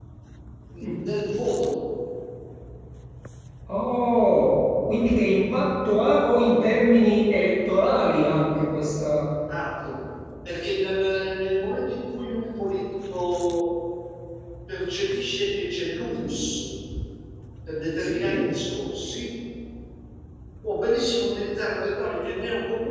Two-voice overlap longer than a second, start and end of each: none

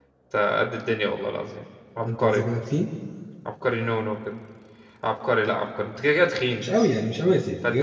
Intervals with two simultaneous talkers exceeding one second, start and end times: none

